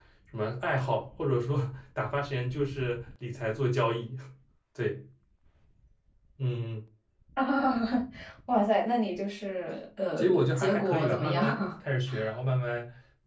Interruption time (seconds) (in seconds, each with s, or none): 10.2 s